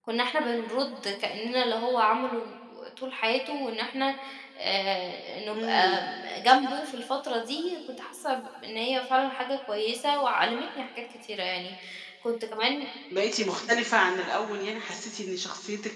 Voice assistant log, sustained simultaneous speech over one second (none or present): none